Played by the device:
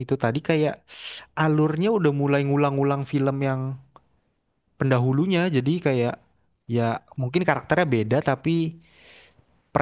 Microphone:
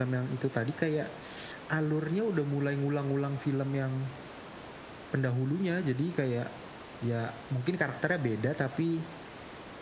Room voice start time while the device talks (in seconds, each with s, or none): none